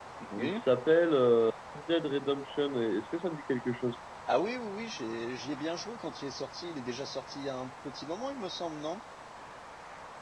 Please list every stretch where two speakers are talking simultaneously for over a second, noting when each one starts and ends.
none

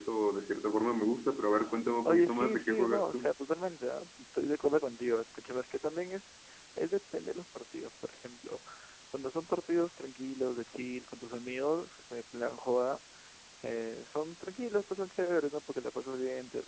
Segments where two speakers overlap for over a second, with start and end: 2.0-3.3

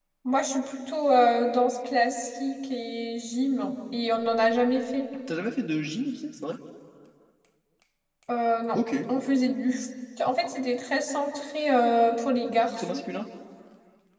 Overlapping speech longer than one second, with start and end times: none

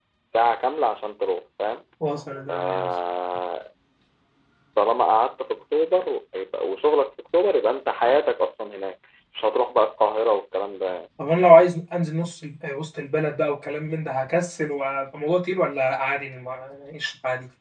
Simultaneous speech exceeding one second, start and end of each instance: none

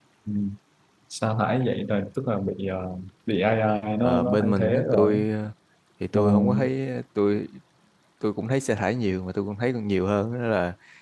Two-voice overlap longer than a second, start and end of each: 4.0-5.2

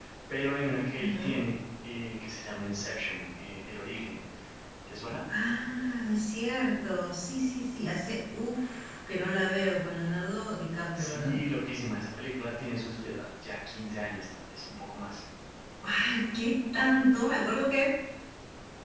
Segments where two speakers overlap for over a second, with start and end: none

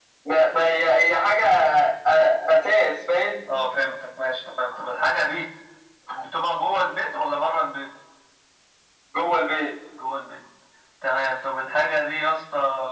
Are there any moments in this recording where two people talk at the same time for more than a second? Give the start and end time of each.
none

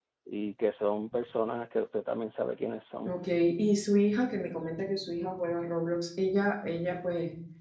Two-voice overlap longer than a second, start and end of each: none

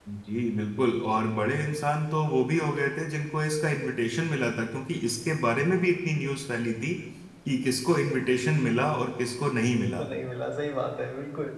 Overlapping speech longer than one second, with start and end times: none

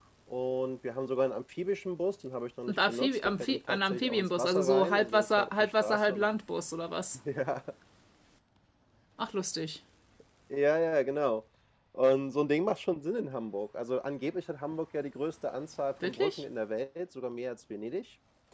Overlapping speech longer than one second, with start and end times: 2.7-6.3

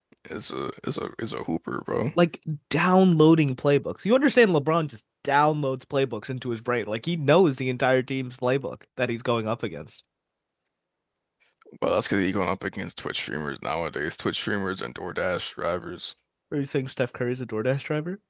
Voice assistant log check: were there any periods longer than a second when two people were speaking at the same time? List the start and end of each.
none

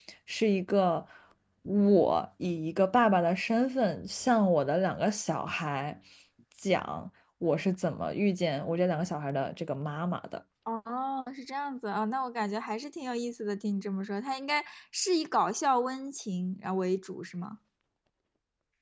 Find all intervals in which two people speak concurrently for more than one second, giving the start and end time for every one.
none

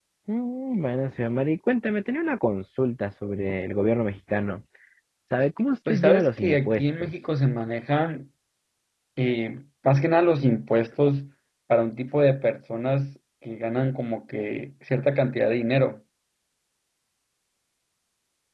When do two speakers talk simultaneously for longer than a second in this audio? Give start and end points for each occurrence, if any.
5.9-7.1

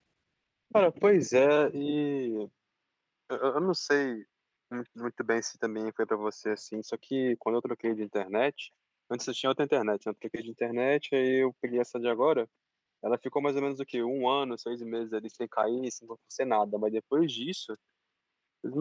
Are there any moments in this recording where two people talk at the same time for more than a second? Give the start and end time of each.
none

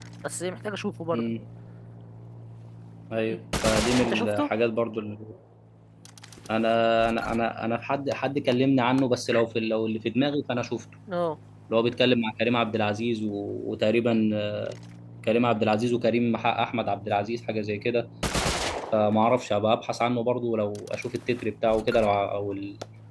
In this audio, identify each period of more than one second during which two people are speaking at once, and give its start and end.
none

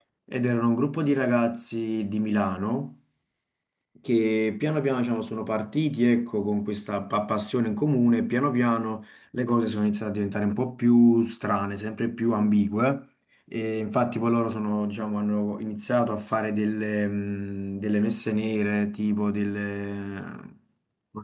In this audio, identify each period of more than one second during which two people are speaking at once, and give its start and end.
none

